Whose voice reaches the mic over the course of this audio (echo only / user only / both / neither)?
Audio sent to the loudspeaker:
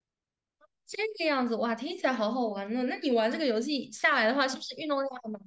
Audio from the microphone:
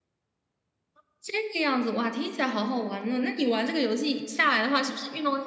echo only